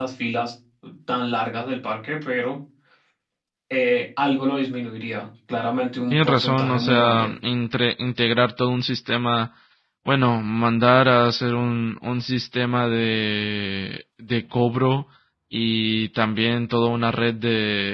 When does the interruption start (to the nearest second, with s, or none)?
6 s